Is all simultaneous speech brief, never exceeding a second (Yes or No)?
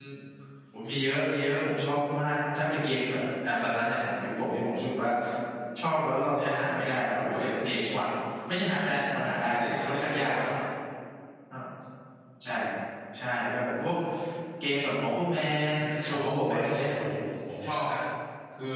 No